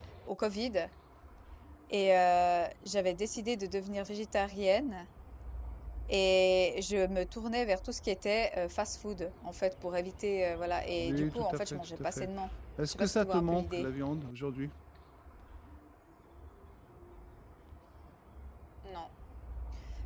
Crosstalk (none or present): present